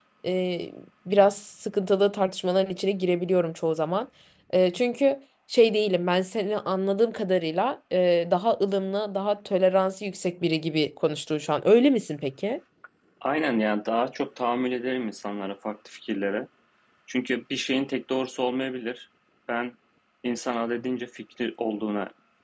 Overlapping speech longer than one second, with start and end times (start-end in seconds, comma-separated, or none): none